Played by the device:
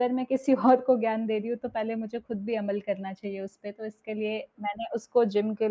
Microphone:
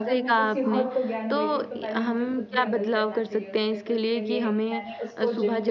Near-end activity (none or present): present